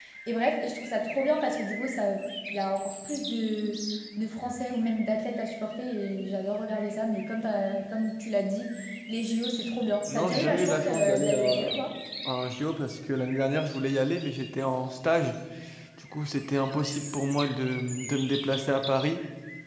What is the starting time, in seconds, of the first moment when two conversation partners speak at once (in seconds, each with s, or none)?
10.1 s